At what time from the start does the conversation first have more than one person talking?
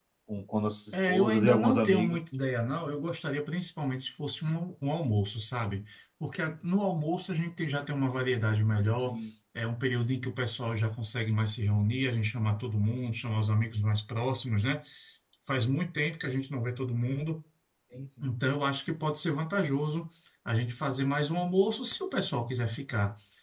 0.9 s

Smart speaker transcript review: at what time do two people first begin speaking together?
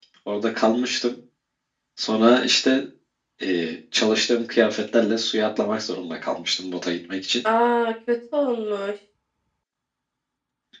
none

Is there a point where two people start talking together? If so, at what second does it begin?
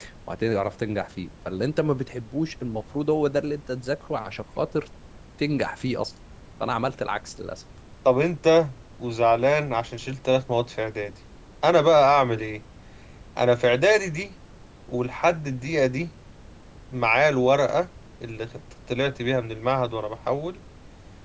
none

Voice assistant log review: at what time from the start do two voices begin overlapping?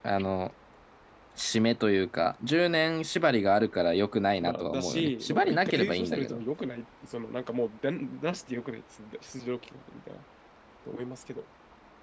4.4 s

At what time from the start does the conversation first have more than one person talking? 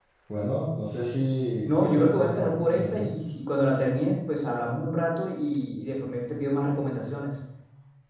1.7 s

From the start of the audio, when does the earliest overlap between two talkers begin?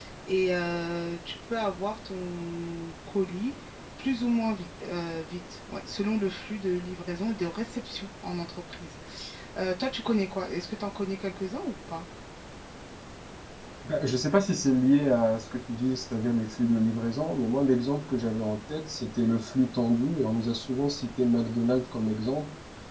none

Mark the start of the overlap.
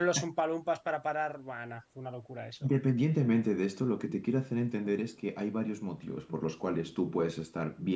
none

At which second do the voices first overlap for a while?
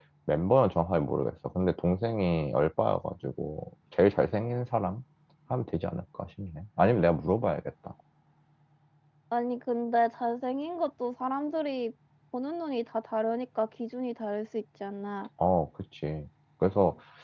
none

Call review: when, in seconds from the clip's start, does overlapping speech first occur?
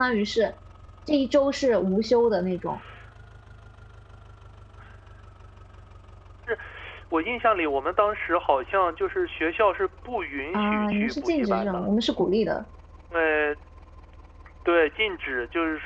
10.5 s

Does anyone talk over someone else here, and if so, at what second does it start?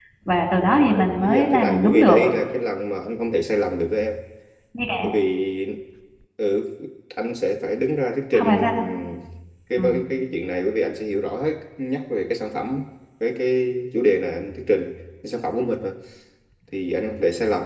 0.7 s

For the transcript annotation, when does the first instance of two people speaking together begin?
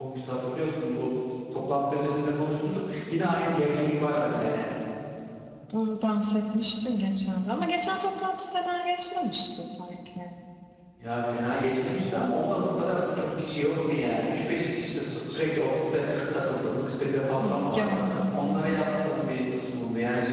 17.4 s

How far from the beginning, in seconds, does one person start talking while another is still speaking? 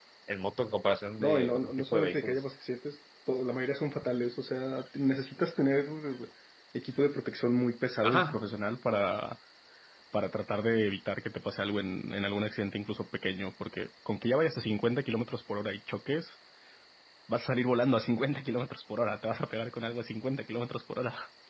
1.2 s

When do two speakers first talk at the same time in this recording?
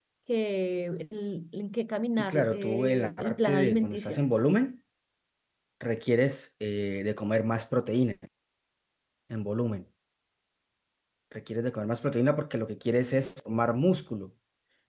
2.2 s

